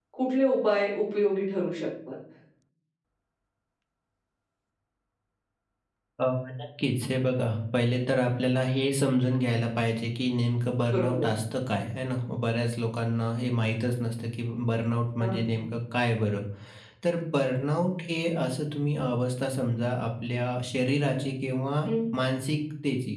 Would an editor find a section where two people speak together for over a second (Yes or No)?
No